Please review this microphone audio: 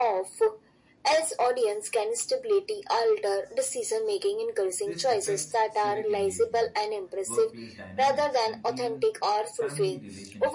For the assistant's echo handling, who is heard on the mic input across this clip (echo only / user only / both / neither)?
both